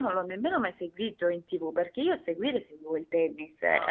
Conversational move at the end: listening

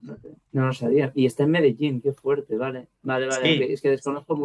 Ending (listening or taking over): listening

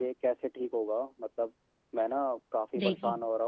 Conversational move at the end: listening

